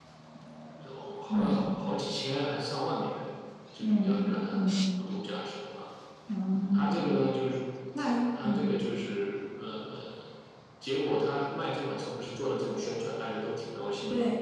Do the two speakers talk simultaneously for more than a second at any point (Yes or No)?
No